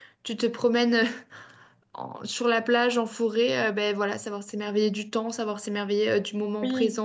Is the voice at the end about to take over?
Yes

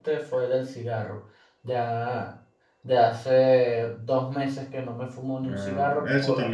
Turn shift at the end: Yes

